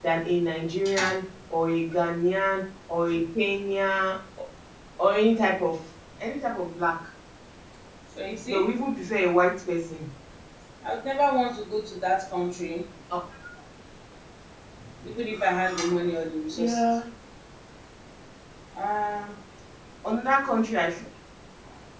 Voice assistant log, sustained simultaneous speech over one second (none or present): none